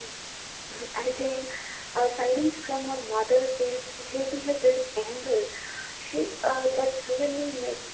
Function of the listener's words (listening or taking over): listening